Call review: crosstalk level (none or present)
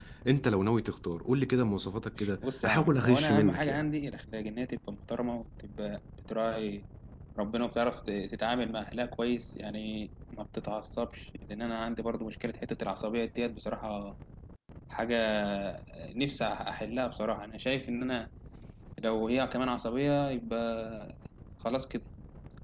present